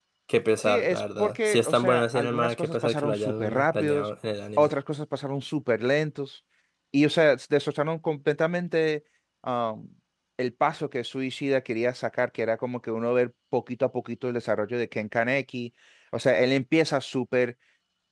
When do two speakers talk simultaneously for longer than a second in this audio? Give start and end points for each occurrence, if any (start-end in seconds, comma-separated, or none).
0.7-4.1